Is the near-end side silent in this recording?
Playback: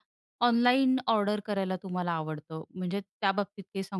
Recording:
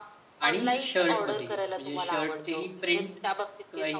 No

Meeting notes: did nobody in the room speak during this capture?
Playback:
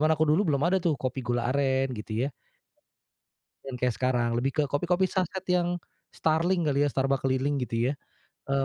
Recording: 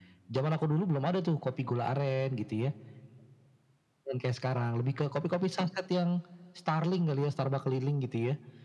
Yes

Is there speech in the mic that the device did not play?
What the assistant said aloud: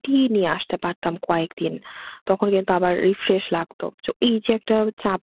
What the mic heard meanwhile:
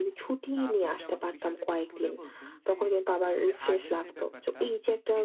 Yes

